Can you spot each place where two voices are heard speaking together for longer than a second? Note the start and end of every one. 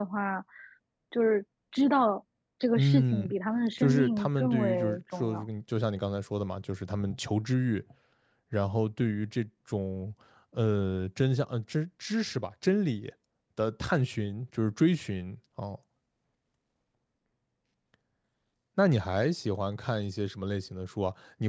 3.8-5.4

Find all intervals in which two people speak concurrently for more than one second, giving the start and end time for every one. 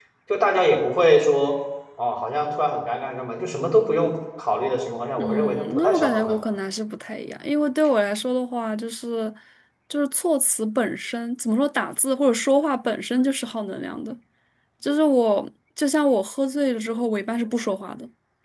5.2-6.4

